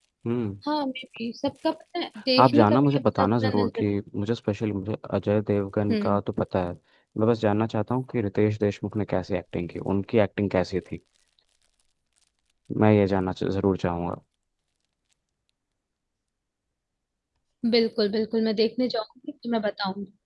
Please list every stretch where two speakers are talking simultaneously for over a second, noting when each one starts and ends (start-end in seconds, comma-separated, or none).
2.4-3.9